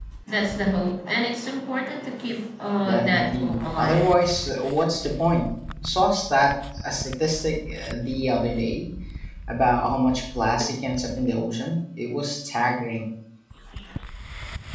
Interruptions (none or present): present